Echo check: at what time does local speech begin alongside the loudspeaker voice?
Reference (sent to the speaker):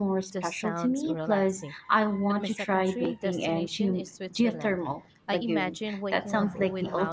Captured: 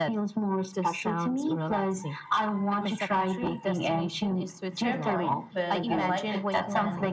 4.7 s

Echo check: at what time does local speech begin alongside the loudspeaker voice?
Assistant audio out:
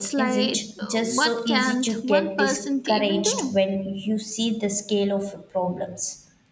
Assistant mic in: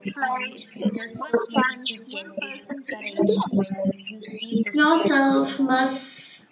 4.7 s

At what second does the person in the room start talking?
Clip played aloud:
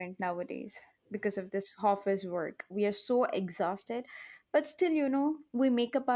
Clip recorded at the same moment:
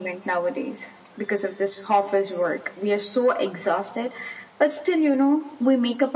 none

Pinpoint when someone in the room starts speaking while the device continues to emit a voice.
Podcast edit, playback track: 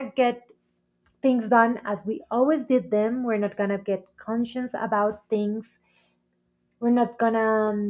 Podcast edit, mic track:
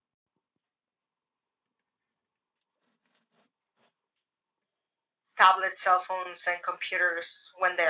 5.4 s

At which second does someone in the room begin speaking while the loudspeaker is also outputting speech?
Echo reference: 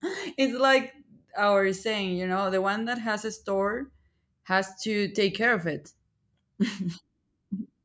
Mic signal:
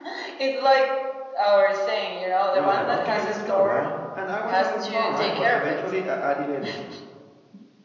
2.5 s

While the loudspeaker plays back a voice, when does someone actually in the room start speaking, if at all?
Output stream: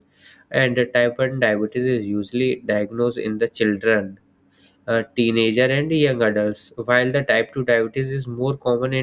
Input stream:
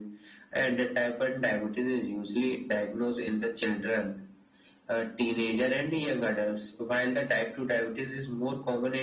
none

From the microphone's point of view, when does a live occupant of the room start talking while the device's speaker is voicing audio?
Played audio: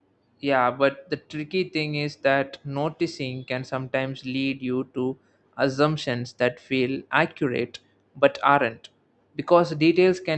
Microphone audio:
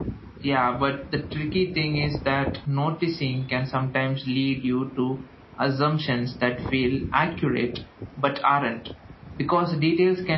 none

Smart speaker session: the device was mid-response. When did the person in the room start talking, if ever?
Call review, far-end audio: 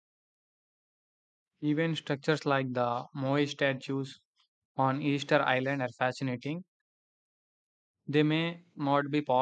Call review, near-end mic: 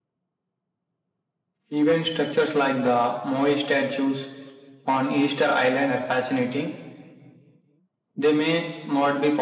none

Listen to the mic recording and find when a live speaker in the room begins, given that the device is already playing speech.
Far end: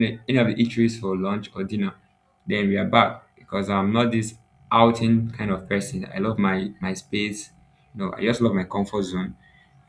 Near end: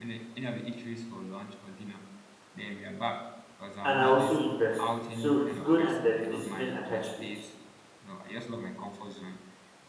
3.8 s

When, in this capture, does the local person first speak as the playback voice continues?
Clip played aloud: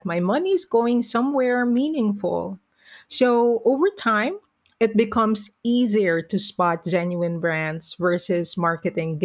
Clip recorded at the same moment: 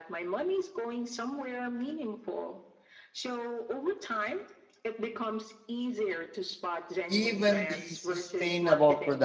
7.1 s

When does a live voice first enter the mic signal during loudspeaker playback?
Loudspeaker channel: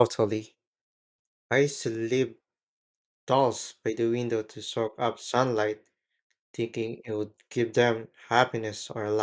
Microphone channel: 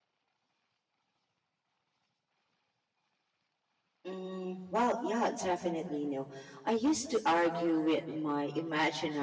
4.0 s

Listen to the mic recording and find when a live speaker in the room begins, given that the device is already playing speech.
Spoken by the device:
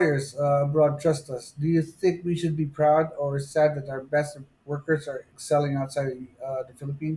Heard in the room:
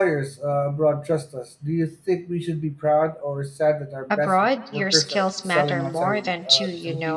4.1 s

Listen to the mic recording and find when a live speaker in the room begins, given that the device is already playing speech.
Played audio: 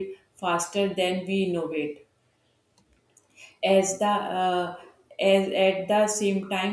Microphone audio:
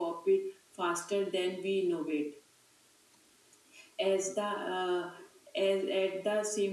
none

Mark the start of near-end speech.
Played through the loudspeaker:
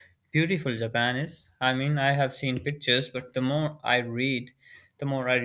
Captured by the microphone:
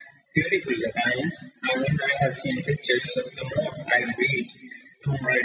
none

